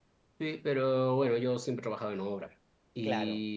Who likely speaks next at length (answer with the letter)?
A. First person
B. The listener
A